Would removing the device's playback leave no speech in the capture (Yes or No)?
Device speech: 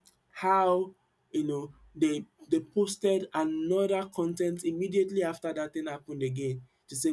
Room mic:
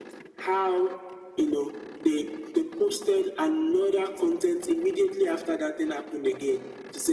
Yes